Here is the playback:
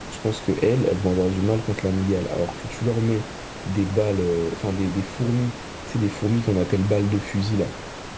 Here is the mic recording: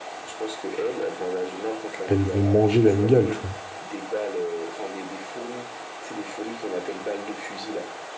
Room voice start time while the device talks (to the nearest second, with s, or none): 2 s